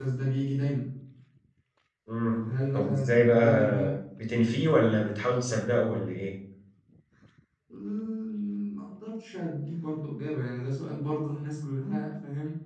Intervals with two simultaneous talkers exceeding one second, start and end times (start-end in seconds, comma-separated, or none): 2.7-4.0